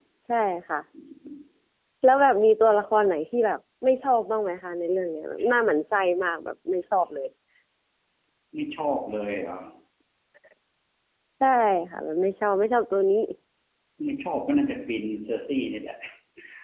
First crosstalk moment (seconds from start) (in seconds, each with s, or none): none